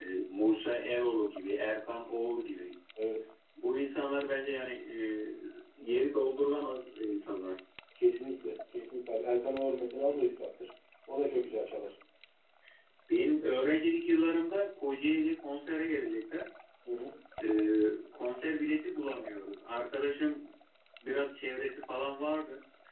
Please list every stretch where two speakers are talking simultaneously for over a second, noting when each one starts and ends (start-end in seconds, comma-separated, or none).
none